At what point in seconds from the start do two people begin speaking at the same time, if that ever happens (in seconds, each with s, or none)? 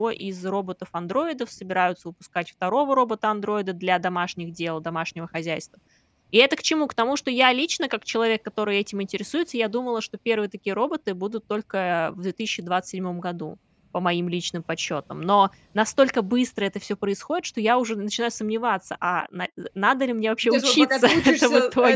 20.4 s